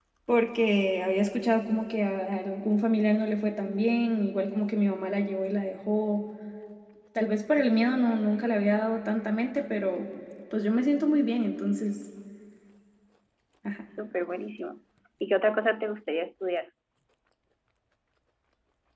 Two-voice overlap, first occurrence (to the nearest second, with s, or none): none